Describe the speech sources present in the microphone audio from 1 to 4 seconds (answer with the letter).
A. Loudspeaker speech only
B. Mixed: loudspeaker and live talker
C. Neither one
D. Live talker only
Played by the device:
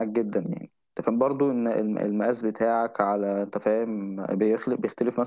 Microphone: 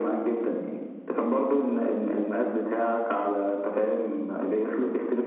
A